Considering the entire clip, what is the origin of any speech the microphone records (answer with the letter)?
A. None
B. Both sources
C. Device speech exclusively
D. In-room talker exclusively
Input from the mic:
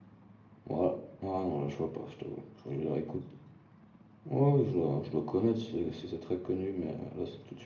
D